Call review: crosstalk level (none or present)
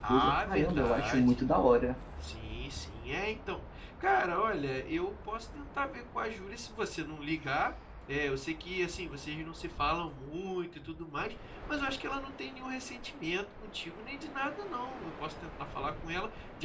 present